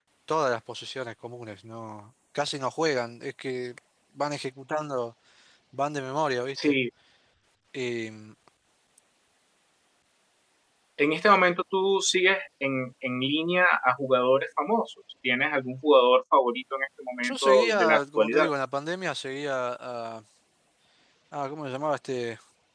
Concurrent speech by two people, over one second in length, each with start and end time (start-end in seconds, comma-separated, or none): 17.2-18.5